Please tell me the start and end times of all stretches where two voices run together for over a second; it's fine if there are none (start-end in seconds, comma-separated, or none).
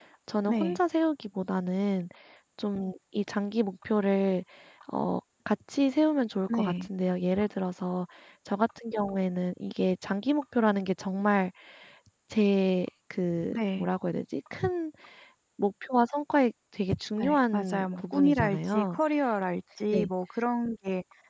17.2-19.0